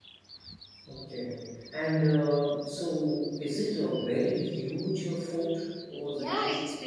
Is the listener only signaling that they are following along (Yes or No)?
No